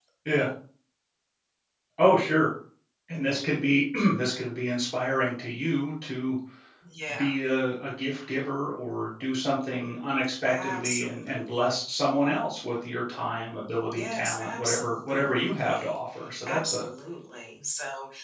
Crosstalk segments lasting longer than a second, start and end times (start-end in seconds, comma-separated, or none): 10.5-11.8, 13.9-16.0